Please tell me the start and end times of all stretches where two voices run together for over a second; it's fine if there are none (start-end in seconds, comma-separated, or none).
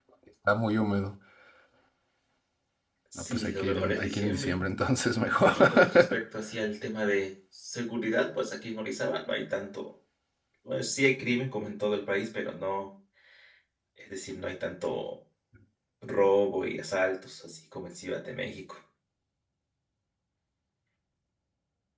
3.1-4.6